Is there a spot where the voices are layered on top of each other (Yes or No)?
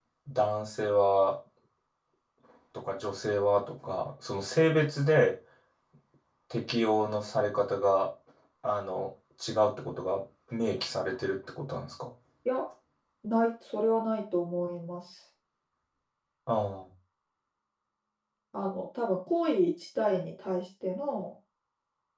No